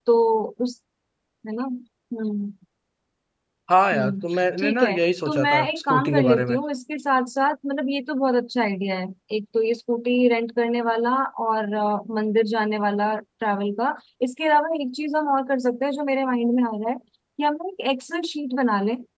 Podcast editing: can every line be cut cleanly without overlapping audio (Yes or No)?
No